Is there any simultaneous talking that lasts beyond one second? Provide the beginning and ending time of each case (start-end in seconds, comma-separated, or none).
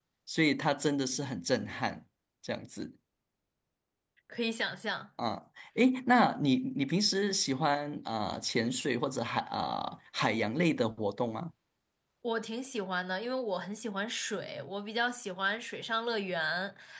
none